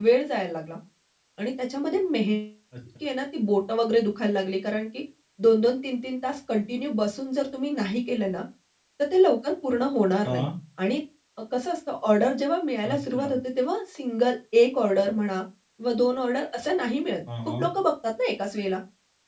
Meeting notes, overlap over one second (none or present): none